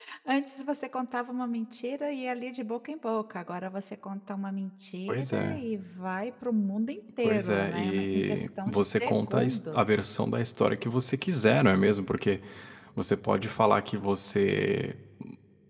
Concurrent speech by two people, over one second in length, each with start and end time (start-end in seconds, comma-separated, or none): 7.2-9.9